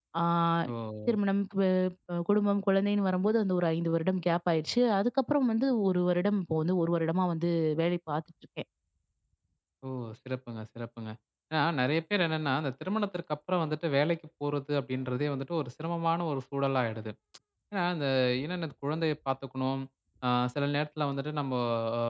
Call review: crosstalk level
none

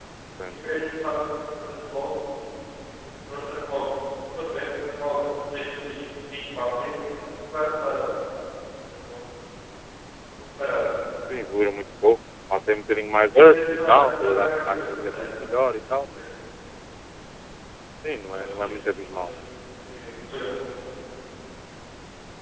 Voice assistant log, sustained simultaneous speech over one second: present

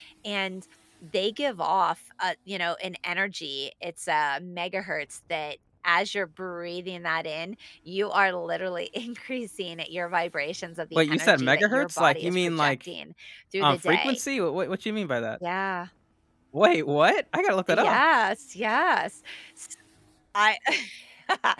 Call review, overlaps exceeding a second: present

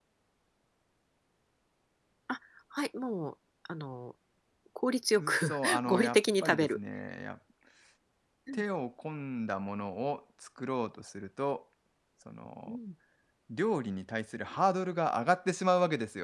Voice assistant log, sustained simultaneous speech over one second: present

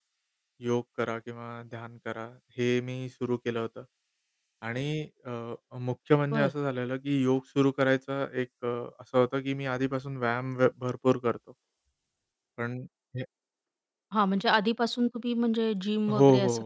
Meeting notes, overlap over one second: none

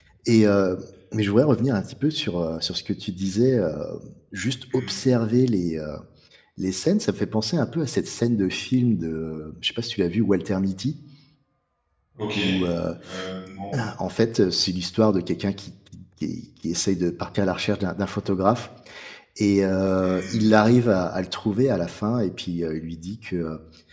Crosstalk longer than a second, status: none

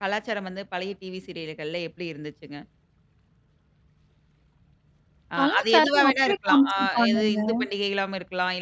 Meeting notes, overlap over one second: present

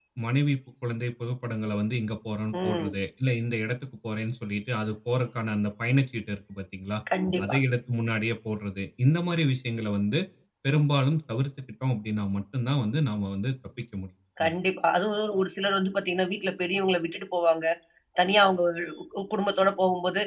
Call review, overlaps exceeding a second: none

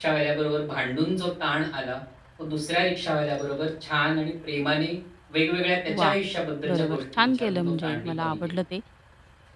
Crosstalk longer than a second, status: present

